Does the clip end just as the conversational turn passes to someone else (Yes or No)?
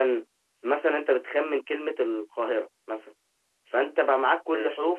No